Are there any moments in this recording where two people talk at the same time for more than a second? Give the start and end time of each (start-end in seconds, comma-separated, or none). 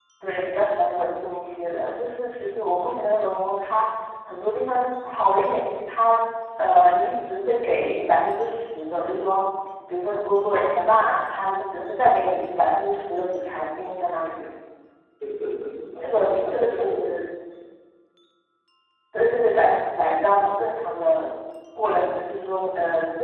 16.0-17.2